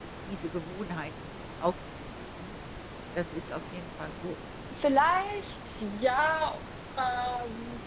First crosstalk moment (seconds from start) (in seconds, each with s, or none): none